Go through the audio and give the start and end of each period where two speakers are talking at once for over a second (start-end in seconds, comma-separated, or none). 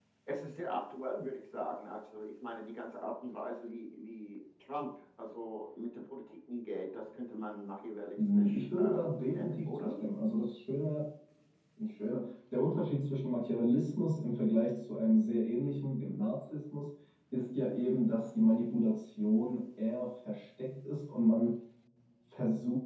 8.2-10.0